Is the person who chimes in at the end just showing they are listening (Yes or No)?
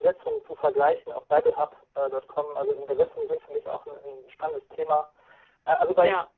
Yes